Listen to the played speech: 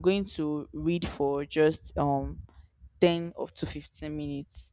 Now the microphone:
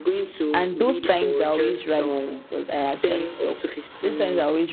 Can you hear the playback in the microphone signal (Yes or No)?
Yes